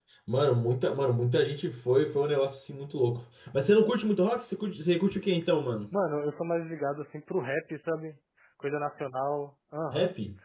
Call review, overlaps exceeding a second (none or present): none